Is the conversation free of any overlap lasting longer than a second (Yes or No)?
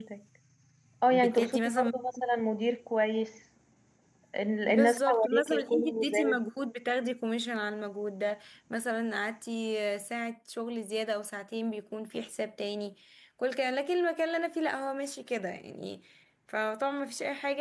No